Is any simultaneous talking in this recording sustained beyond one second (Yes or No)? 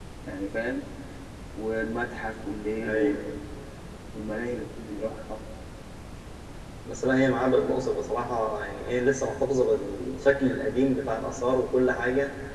No